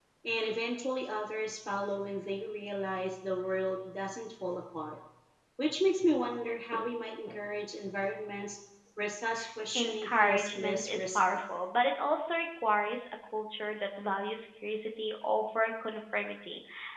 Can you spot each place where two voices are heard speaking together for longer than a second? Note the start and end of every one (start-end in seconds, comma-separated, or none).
9.7-11.2